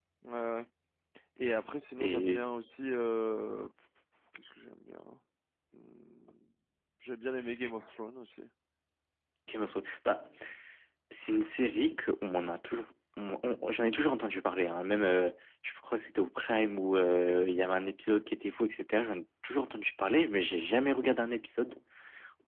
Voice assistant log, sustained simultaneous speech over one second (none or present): none